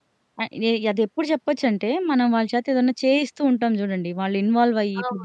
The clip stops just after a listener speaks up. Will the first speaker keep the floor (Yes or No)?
Yes